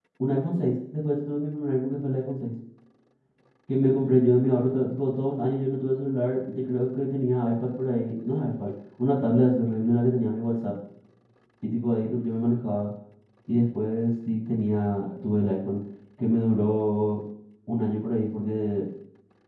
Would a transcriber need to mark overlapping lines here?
No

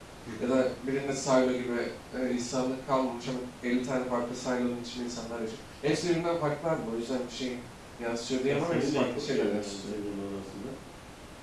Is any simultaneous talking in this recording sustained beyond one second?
Yes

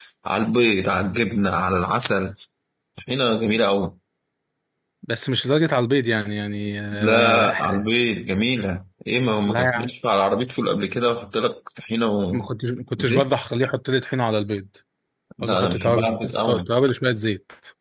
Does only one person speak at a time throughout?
No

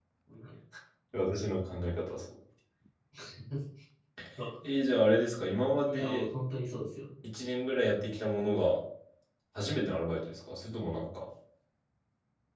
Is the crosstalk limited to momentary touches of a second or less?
Yes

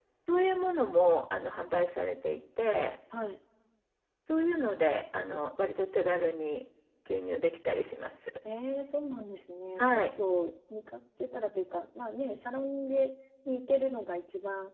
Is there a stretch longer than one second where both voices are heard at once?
No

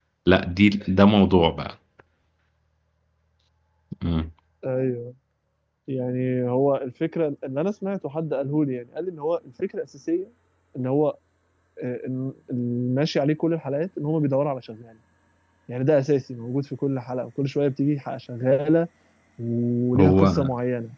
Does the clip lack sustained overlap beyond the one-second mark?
Yes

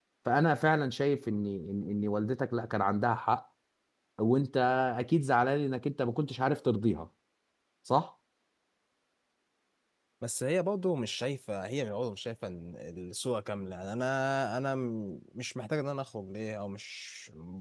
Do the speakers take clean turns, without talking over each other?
Yes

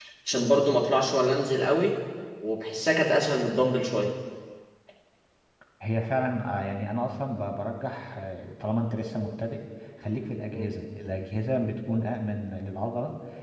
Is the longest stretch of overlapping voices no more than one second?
Yes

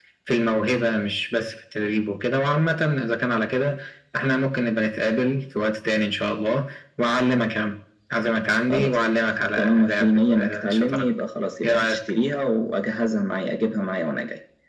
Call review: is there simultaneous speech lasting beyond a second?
Yes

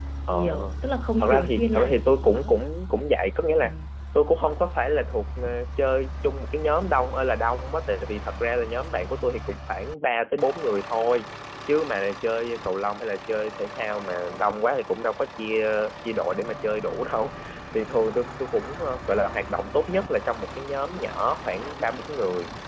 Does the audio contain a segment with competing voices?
Yes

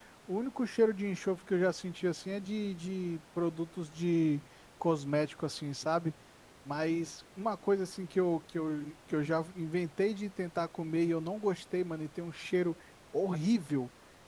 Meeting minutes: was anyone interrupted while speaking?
No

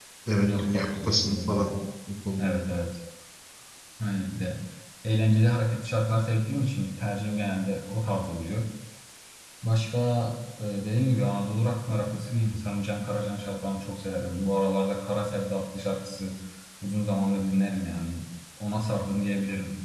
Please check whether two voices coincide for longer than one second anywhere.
Yes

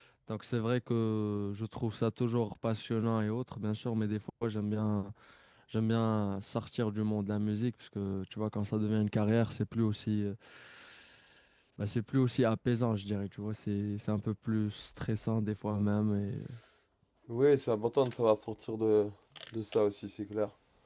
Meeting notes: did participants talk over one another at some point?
No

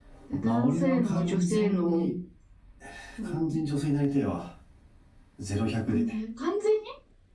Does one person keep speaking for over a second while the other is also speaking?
Yes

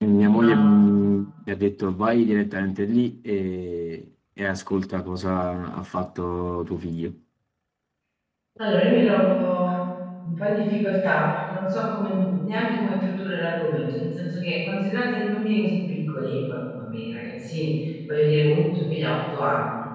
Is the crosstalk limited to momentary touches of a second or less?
Yes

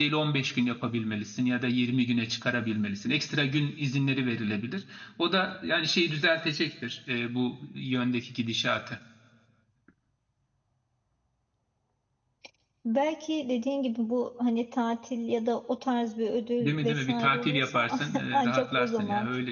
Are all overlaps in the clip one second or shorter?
No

